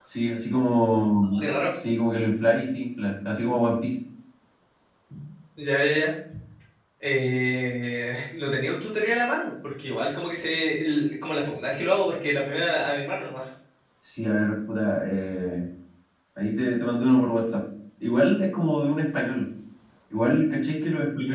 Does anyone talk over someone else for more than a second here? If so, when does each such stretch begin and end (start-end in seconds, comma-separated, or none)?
none